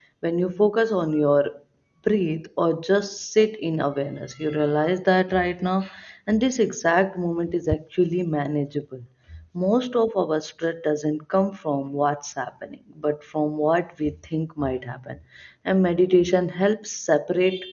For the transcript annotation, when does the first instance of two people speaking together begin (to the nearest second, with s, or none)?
none